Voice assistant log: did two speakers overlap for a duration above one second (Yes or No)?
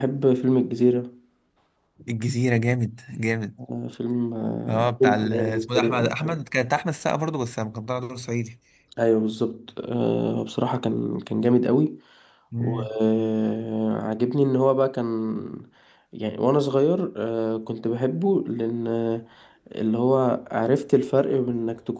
Yes